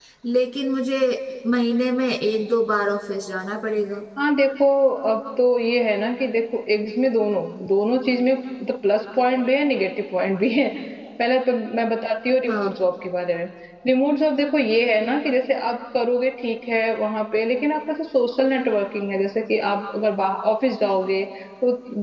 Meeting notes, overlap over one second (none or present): none